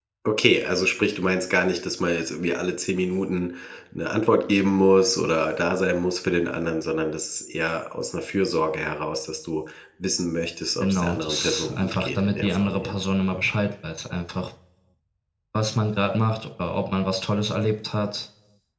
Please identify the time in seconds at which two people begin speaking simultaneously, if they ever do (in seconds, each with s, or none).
10.8 s